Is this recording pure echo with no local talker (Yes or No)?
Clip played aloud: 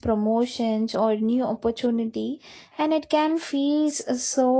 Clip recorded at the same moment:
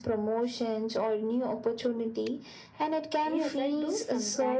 No